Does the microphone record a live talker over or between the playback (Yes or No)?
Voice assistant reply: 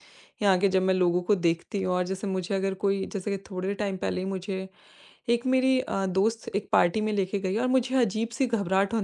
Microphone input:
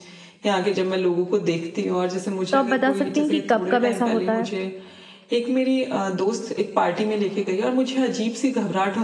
Yes